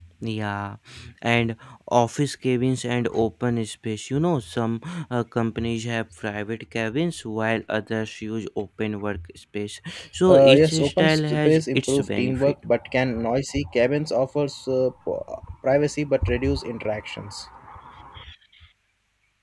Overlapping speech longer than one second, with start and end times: 10.3-12.5

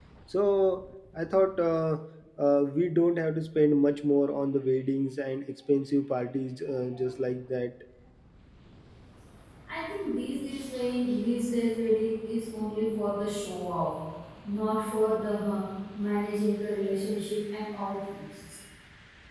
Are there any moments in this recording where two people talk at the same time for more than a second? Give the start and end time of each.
none

